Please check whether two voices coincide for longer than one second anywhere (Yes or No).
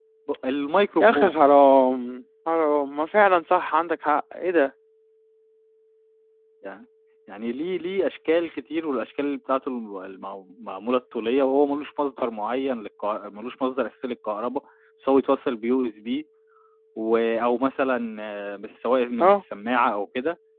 No